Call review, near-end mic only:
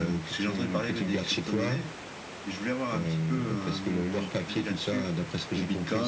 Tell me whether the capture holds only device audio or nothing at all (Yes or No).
No